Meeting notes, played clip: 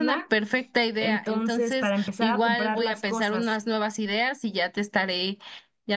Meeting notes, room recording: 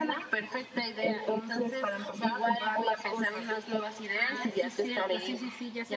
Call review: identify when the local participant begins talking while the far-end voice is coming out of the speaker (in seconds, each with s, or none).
4.2 s